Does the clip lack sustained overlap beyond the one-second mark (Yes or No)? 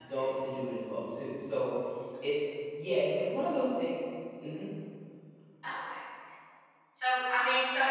Yes